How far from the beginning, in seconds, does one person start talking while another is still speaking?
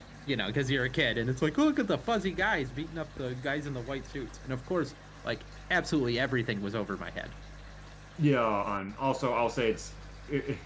none

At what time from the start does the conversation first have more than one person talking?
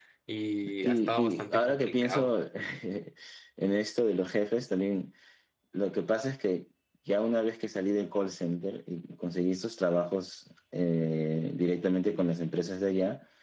1 s

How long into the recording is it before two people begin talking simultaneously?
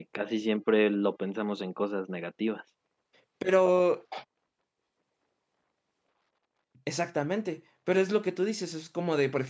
none

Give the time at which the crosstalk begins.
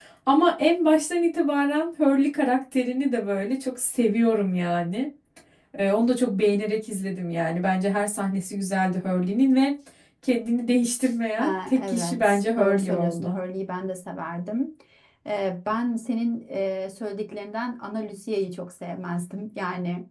11 s

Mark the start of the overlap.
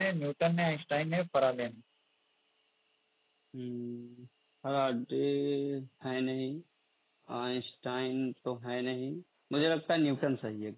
none

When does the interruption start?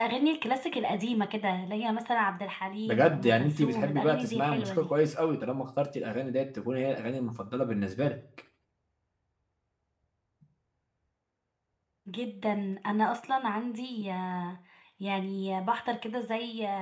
3 s

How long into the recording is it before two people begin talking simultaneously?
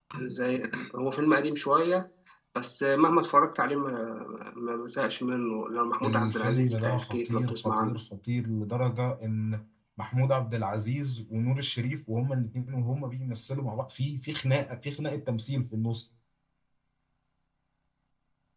6 s

